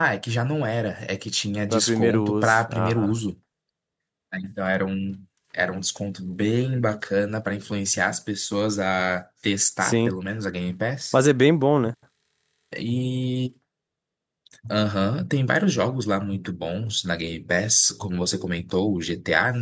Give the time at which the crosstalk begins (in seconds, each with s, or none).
1.7 s